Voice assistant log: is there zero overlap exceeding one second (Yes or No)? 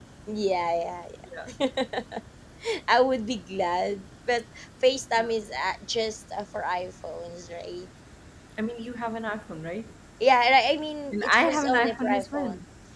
No